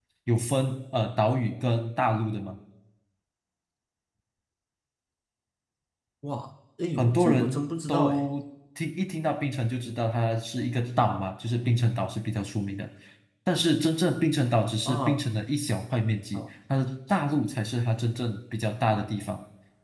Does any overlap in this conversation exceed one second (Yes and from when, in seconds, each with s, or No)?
Yes, from 7.0 s